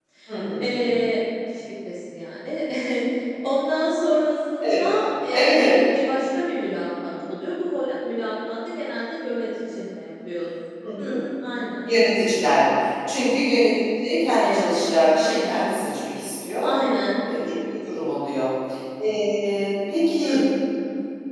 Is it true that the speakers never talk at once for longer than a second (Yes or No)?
No